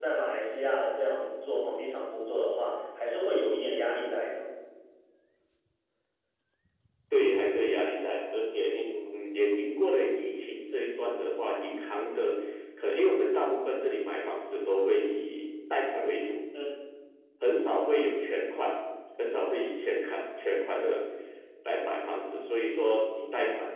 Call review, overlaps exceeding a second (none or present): none